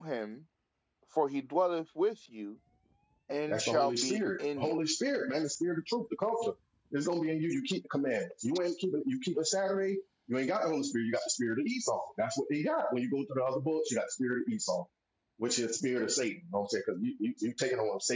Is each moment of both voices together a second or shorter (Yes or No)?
No